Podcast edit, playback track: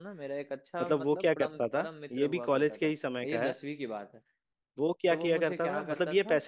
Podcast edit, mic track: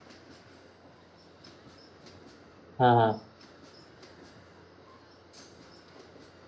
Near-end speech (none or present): present